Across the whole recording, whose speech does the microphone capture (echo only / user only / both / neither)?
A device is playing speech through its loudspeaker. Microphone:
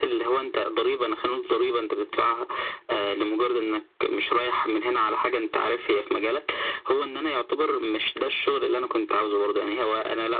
echo only